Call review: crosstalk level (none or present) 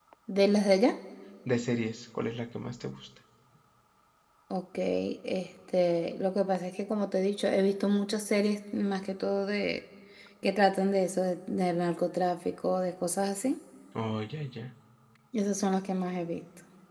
none